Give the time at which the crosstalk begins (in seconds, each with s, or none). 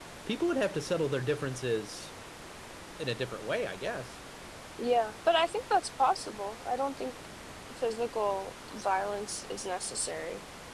none